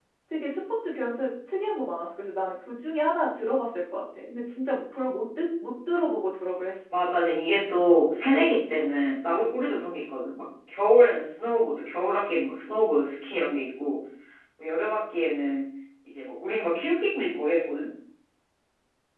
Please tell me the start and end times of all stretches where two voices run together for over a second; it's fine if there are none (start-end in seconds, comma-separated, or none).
none